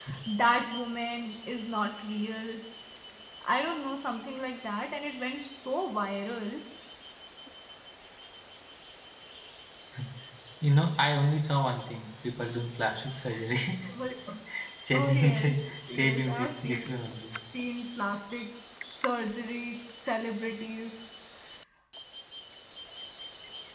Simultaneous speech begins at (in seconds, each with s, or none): 14.9 s